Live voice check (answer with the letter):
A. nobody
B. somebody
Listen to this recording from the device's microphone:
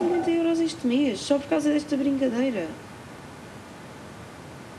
A